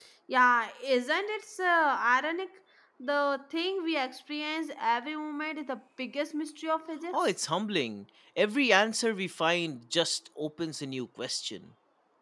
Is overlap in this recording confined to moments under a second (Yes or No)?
Yes